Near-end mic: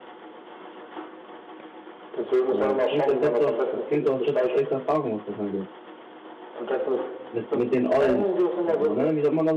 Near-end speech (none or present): present